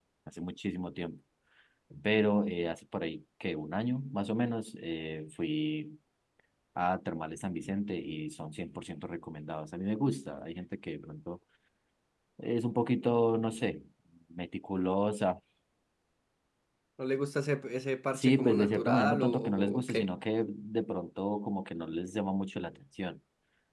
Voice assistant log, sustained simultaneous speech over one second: present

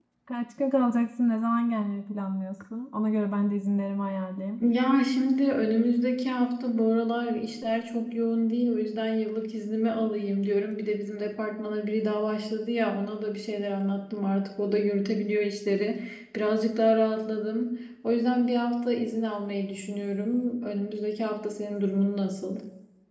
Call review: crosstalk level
none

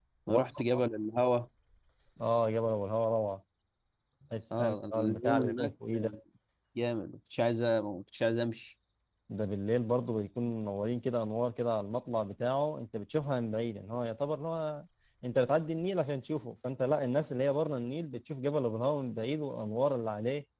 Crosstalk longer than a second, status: present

